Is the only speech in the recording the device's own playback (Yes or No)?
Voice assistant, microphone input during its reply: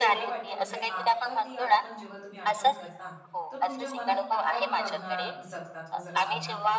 No